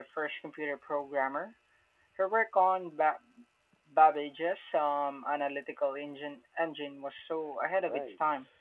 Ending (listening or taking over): taking over